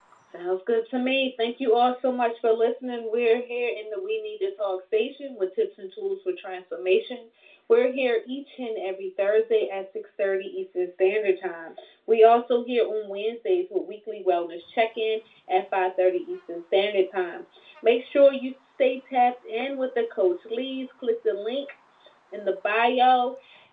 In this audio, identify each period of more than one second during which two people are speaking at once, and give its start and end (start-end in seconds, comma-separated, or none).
none